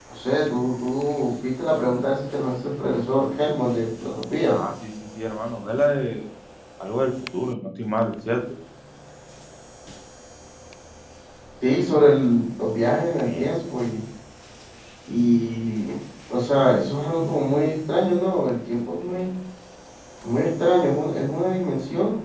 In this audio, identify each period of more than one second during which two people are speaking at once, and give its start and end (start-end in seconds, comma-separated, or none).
none